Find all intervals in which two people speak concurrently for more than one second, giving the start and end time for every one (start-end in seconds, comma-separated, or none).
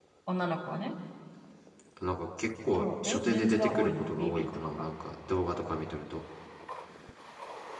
2.8-4.8